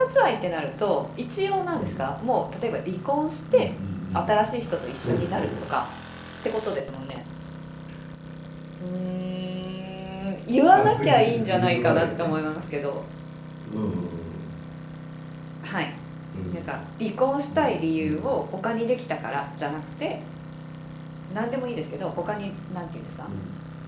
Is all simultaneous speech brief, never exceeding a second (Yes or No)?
No